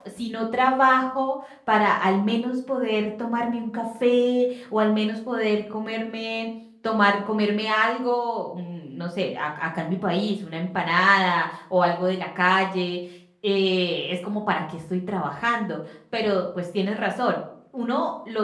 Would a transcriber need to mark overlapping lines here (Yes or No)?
No